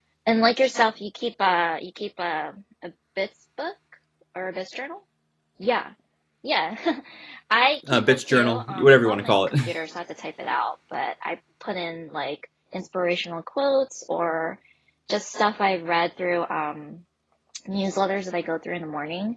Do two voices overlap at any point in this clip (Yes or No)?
Yes